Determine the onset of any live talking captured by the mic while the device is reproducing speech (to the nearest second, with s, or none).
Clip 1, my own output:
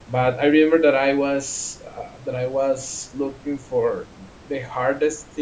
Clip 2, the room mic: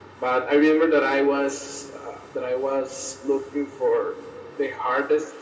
none